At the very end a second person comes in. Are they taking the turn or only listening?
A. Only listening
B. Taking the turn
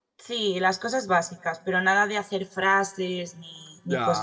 B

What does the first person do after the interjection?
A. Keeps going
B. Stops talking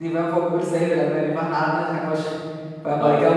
A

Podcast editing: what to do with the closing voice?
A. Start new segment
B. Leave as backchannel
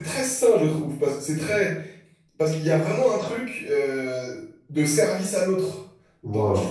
B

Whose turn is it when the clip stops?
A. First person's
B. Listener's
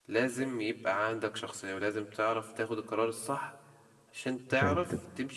A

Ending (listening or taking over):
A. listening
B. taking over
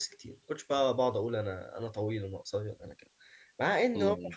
A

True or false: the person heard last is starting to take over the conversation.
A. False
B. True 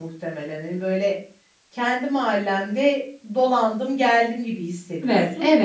B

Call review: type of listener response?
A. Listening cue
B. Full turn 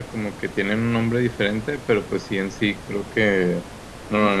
A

